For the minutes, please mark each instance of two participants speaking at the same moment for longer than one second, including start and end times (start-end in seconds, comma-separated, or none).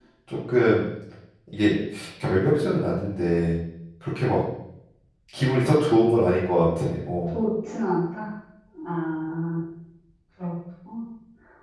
none